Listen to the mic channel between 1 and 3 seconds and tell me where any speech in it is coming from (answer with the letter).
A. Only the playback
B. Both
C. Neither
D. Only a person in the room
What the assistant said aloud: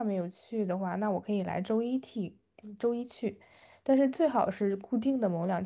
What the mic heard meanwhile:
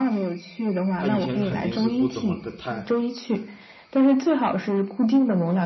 B